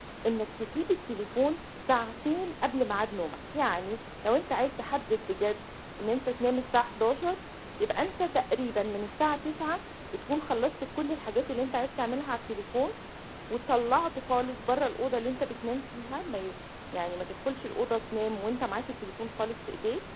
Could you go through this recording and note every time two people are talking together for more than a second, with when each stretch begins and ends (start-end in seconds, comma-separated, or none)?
none